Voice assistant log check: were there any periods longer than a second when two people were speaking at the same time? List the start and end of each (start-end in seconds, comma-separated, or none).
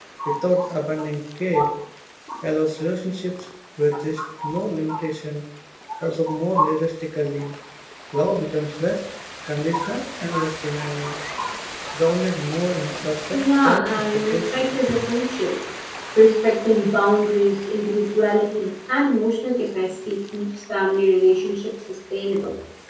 13.3-14.7